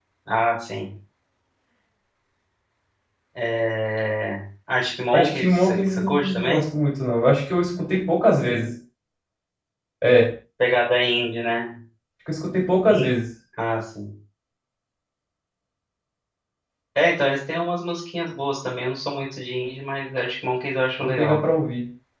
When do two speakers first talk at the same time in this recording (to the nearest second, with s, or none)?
5 s